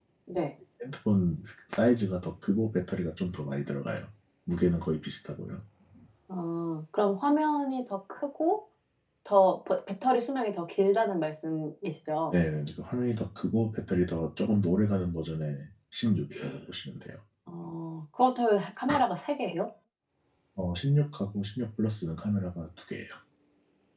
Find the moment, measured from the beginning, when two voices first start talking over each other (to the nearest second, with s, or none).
none